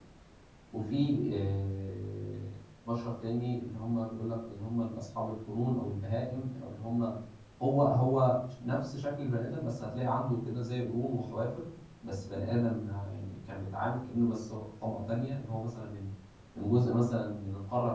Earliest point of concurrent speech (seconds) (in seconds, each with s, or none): none